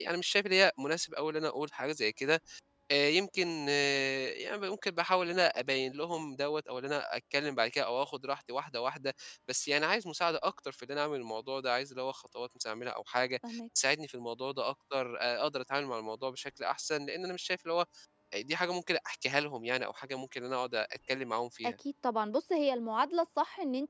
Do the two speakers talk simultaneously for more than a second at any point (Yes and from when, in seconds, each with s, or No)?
No